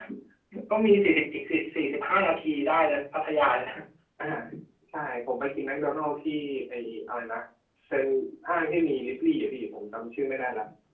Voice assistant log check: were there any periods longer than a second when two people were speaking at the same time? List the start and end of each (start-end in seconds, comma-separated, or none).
none